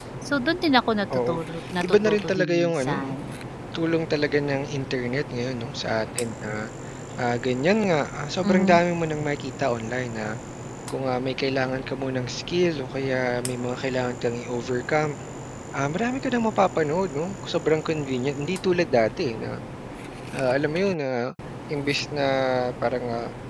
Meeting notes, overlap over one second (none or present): present